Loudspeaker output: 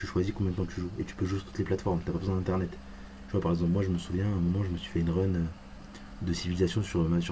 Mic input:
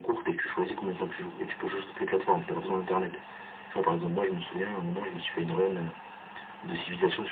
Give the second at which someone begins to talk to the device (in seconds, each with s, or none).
none